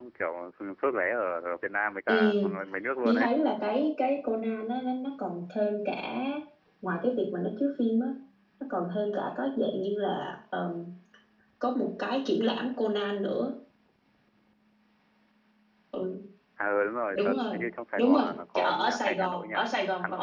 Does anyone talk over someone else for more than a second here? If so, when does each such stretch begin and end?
18.0-19.5

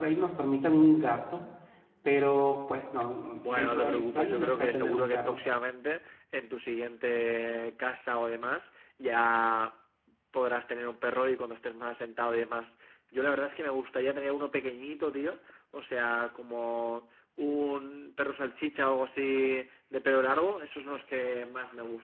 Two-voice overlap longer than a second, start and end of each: 3.4-5.4

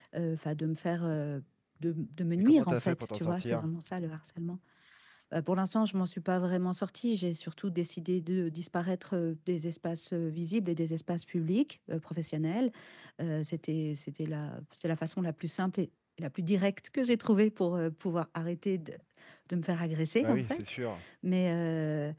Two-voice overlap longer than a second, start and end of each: 2.4-3.7

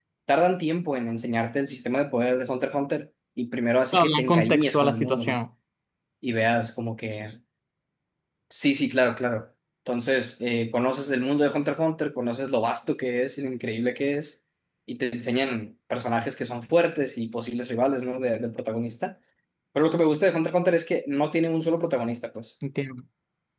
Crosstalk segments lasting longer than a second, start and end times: 3.9-5.4

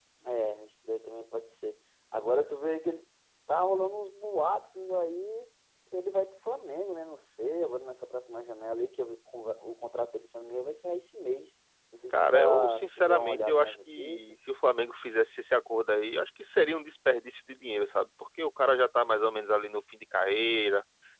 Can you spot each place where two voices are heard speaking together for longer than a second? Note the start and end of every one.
12.1-14.3

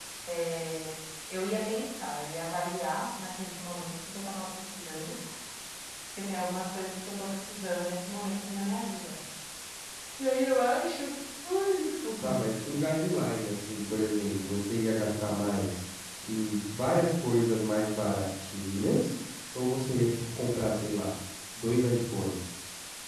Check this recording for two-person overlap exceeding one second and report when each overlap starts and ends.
none

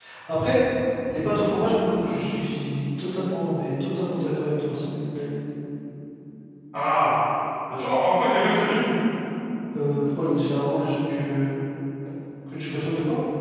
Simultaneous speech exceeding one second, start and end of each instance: none

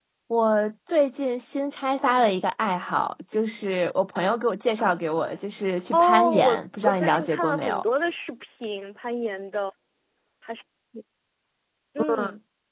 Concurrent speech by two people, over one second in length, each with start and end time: 5.9-7.8

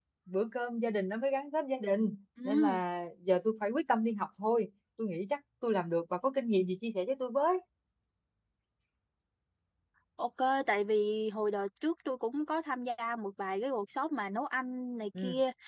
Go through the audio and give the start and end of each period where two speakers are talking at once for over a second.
none

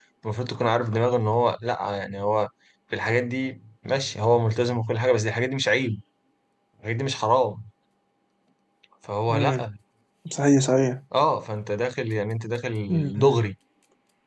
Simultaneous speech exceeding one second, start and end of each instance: none

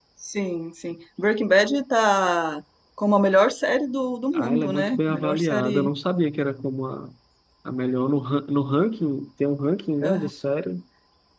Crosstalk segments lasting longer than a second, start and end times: 4.3-5.9

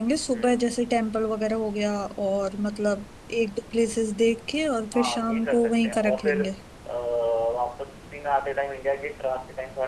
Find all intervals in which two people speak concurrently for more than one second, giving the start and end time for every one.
4.9-6.4

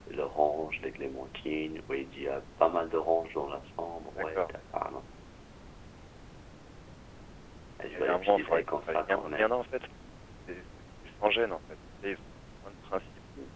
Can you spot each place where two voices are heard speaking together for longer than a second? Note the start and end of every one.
8.0-9.5

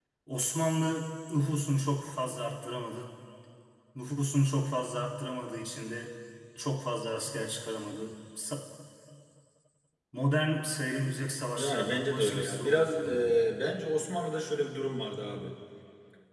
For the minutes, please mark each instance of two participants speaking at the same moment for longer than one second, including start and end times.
11.6-13.3

